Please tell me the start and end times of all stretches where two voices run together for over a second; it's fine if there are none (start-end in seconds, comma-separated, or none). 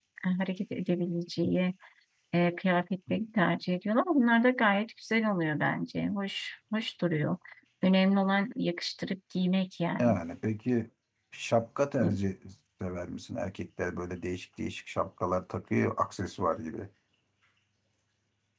none